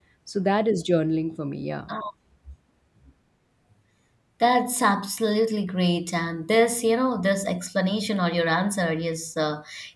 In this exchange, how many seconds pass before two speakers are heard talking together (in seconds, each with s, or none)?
none